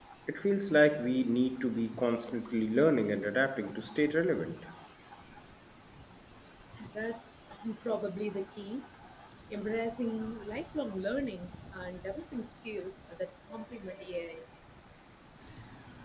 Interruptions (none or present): none